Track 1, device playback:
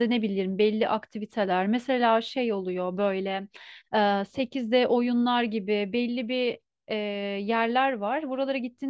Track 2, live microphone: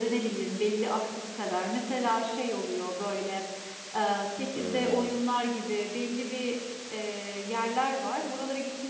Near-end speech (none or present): present